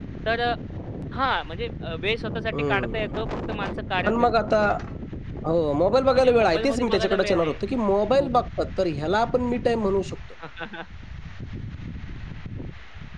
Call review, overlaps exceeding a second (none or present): present